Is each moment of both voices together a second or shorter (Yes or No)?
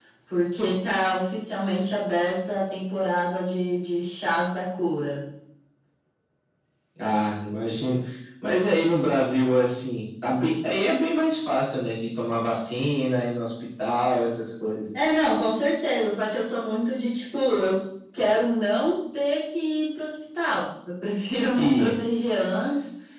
Yes